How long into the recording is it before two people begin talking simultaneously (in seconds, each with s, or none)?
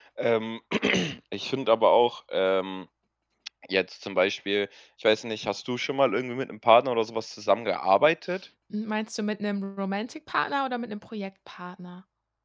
none